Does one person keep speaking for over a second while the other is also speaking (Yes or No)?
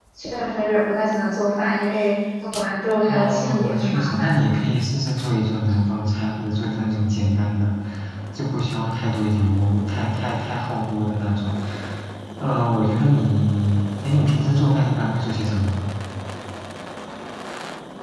Yes